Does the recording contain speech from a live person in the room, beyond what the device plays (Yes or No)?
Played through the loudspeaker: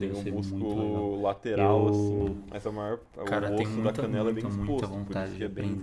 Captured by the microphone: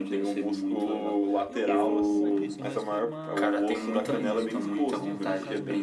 Yes